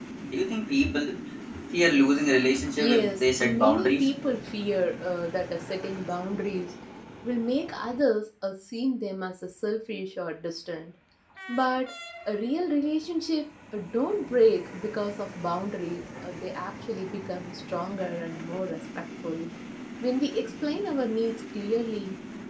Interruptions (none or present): present